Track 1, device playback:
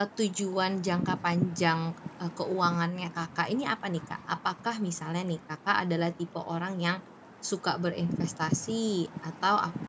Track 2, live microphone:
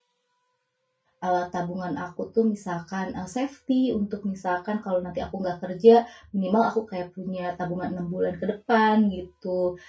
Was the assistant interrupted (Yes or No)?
Yes